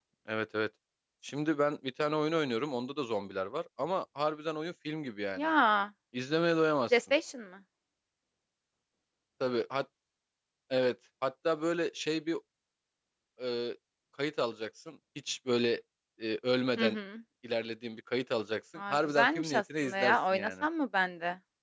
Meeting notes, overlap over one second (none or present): present